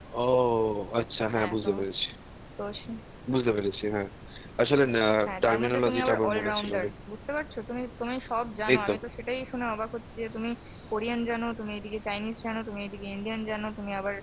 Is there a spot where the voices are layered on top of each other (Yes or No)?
Yes